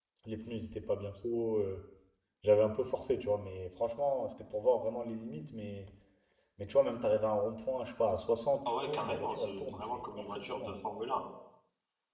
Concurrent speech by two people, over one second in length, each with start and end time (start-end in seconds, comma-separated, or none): 8.7-10.8